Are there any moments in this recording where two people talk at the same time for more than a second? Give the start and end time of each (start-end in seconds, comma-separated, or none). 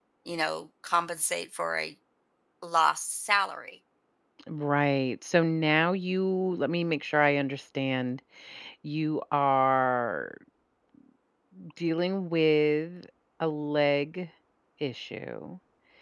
none